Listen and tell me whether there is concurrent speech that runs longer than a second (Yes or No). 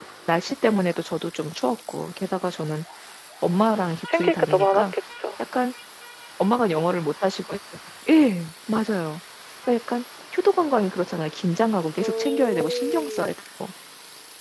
Yes